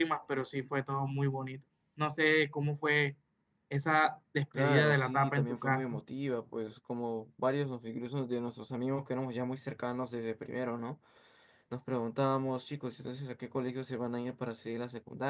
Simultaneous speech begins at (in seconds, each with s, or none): 4.5 s